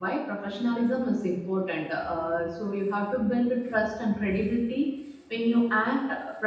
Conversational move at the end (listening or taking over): listening